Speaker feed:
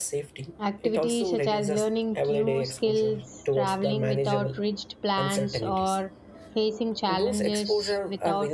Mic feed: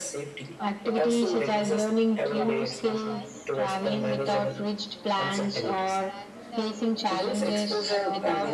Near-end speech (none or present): present